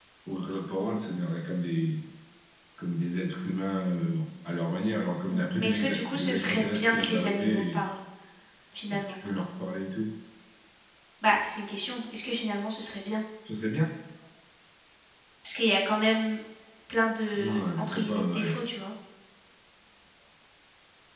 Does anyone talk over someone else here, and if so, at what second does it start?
5.3 s

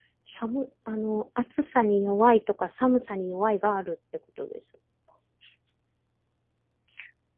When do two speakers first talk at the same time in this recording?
none

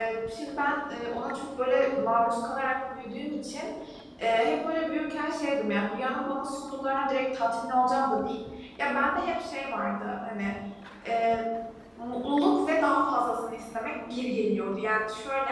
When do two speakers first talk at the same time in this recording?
none

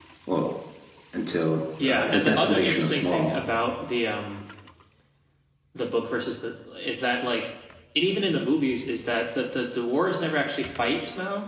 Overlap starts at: 1.8 s

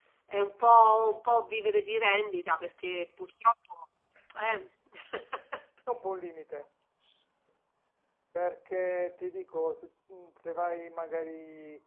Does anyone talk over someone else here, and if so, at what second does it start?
none

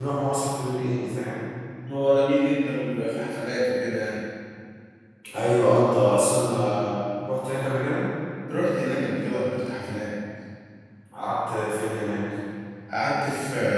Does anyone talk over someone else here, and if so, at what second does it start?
none

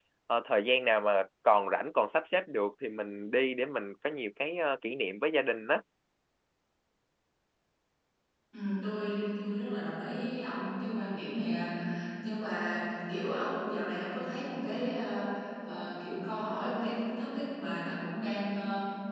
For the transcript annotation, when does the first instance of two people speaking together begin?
none

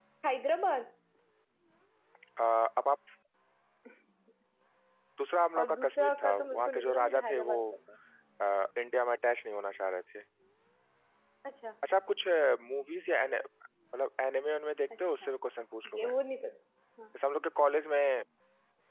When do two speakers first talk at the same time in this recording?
5.6 s

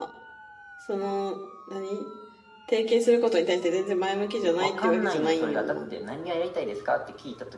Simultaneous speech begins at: 4.4 s

